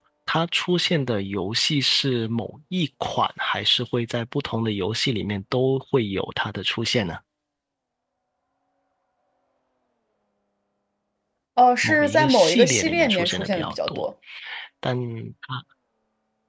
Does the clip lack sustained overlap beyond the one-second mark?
No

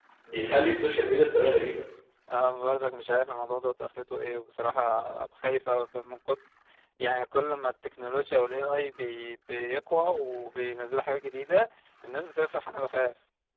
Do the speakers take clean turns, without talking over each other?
Yes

